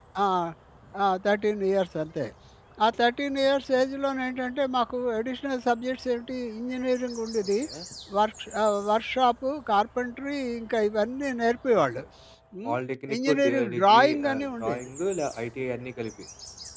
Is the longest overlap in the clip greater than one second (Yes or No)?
Yes